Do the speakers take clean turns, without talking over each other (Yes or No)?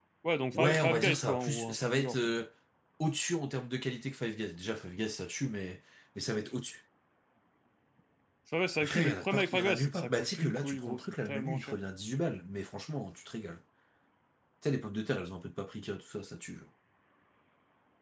No